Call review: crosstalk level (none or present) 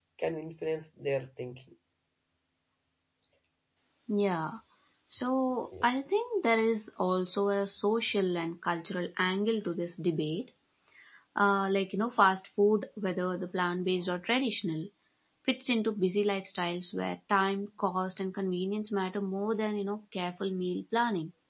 none